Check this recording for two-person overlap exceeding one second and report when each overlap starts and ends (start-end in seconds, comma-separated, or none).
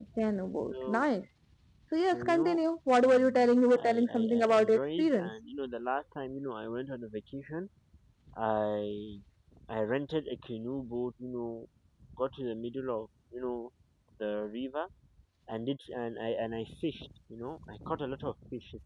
3.0-5.3